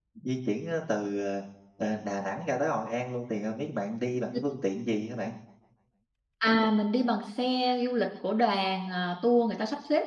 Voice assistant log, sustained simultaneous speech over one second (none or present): none